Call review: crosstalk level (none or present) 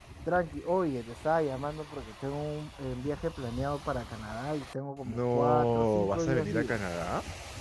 present